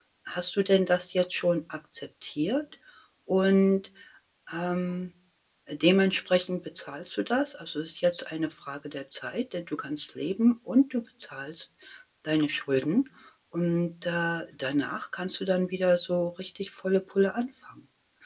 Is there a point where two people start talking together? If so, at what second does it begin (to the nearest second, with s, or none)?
none